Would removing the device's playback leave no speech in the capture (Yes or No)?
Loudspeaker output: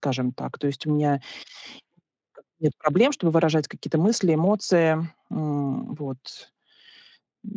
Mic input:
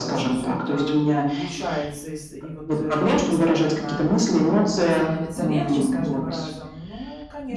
No